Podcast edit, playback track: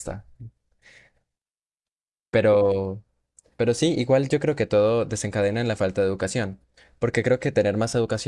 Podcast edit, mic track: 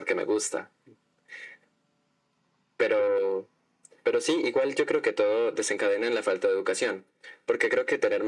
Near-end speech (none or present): none